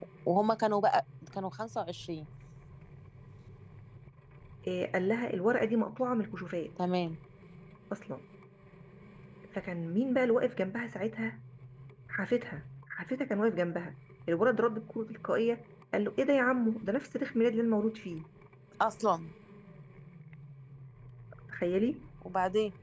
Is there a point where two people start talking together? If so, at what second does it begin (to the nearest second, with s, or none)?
none